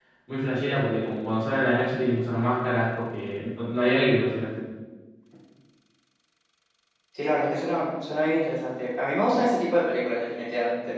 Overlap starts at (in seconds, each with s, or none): none